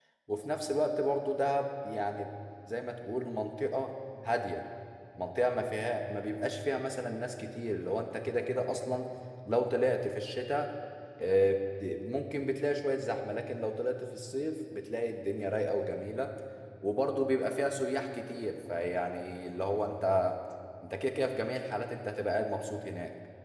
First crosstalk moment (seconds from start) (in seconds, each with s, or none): none